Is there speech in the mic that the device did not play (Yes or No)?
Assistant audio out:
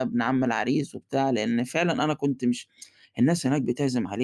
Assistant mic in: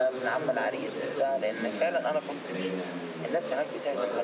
Yes